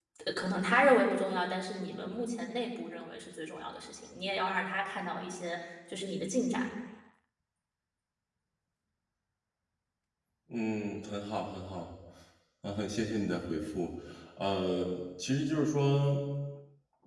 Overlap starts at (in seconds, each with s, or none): none